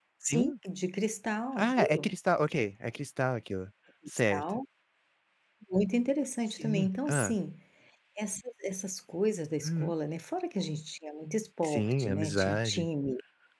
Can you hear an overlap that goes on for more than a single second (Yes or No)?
Yes